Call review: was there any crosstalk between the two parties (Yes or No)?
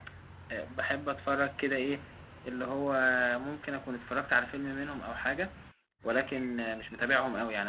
No